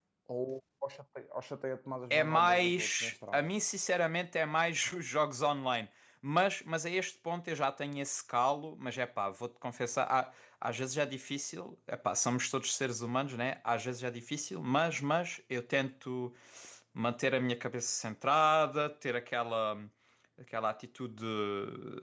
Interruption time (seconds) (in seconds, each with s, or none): 2.1 s